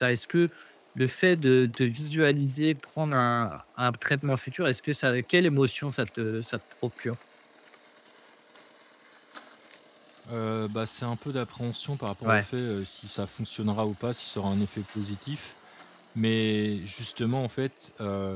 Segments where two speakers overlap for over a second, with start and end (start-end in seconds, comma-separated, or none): none